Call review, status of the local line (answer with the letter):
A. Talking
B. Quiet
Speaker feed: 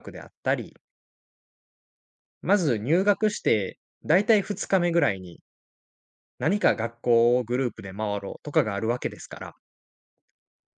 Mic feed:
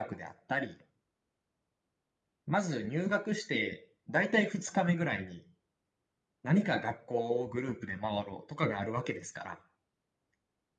B